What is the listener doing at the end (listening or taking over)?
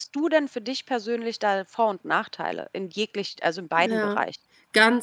taking over